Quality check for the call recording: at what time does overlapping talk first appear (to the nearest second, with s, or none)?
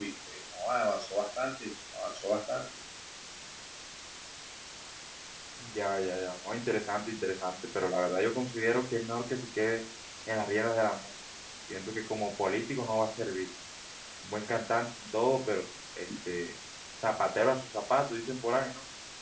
none